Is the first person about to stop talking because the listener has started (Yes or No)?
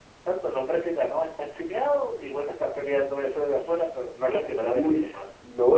Yes